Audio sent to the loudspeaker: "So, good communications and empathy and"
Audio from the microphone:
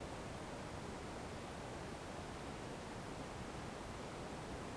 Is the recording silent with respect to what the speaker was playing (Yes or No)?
Yes